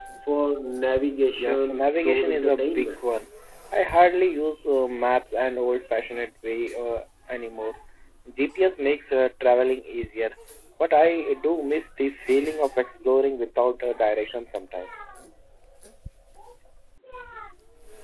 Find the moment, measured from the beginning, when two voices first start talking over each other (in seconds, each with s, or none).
1.4 s